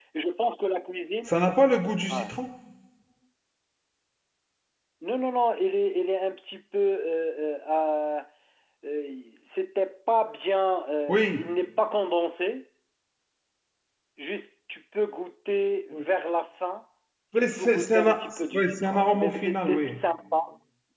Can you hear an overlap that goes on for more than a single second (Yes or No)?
Yes